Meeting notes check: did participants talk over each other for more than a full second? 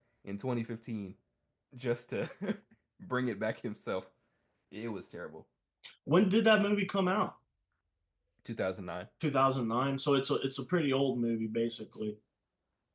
No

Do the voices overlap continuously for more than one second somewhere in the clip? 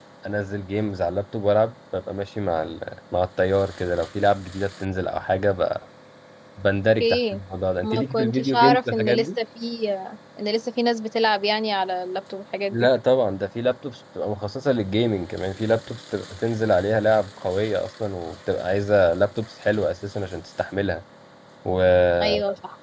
Yes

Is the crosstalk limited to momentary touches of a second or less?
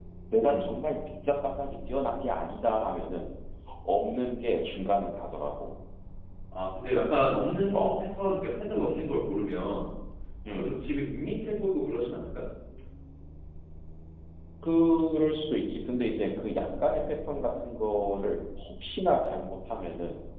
Yes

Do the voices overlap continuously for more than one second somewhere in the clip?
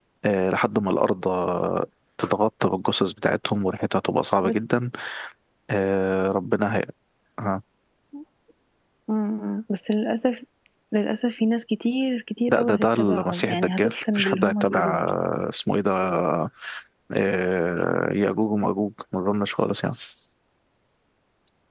Yes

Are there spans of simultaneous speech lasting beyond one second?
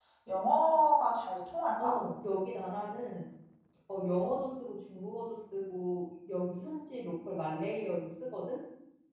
No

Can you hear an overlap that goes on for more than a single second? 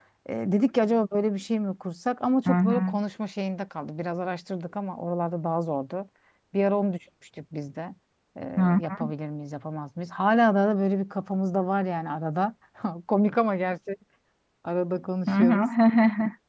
No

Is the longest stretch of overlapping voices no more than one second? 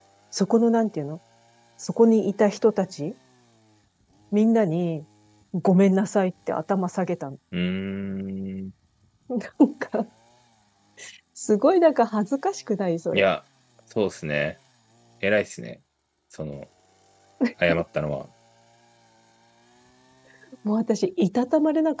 Yes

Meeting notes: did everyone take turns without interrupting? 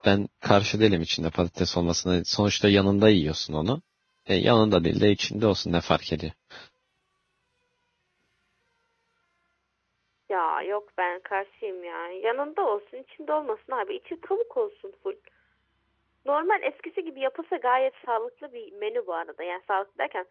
Yes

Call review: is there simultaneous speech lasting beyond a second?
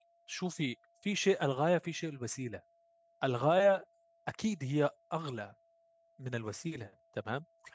No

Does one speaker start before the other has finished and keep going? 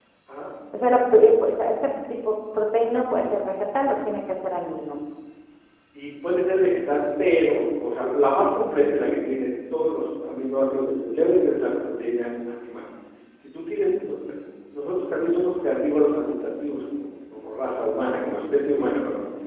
No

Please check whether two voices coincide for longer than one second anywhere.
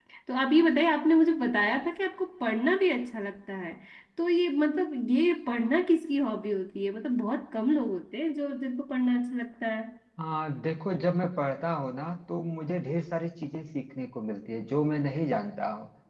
No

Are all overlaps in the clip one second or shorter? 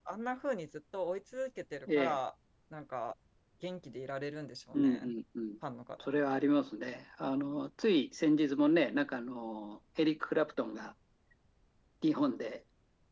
Yes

